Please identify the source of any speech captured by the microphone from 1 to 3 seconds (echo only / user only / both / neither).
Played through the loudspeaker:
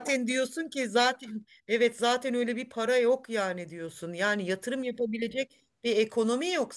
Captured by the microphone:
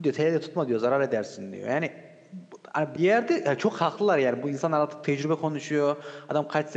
user only